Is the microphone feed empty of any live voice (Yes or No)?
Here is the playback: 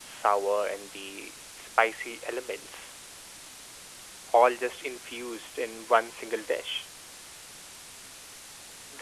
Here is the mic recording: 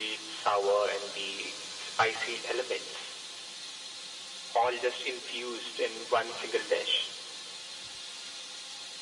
Yes